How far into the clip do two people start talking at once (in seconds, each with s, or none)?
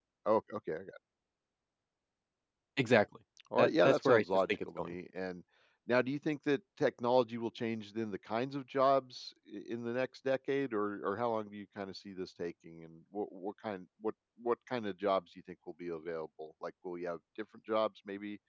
3.6 s